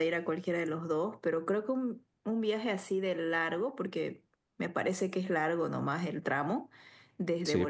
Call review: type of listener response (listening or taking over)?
listening